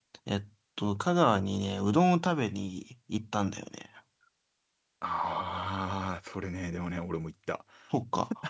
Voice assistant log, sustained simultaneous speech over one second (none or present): none